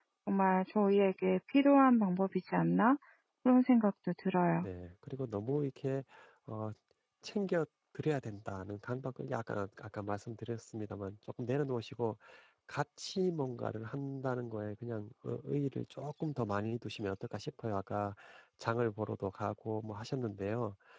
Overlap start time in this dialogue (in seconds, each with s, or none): none